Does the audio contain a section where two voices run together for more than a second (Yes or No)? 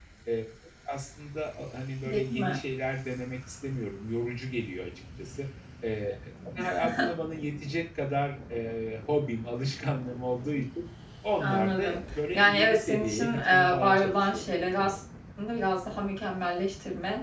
Yes